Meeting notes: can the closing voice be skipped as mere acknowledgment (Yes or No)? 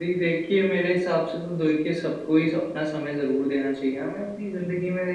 Yes